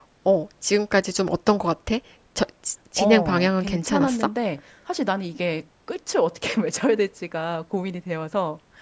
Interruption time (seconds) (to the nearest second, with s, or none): 3 s